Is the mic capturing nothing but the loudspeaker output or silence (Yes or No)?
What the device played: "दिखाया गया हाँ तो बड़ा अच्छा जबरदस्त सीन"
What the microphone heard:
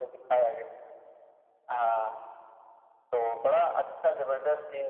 Yes